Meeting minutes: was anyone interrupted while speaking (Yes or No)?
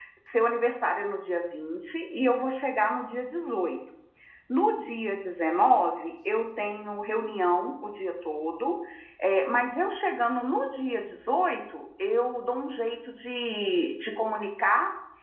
No